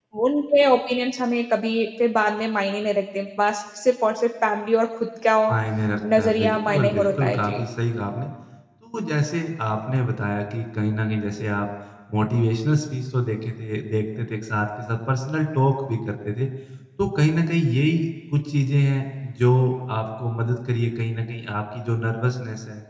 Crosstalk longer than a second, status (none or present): present